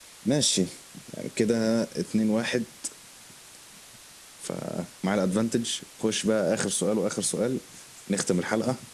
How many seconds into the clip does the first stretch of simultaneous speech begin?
none

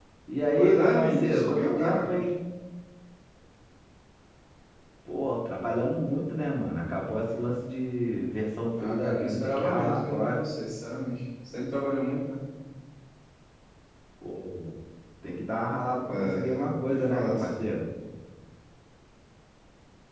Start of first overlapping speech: 0.6 s

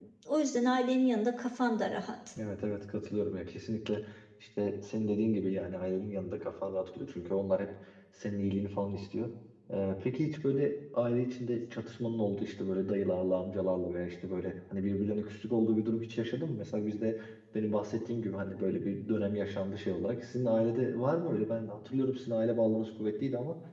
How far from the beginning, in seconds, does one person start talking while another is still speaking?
none

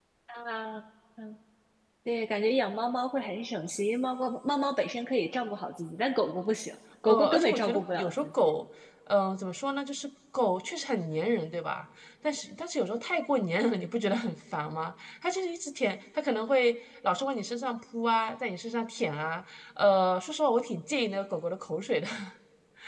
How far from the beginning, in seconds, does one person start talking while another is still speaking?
7.0 s

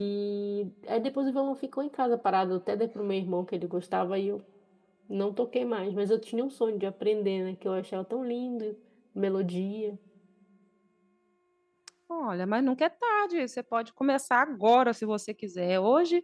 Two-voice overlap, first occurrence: none

